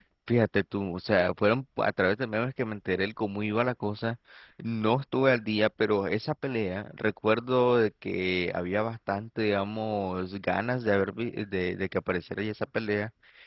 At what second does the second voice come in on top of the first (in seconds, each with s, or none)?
none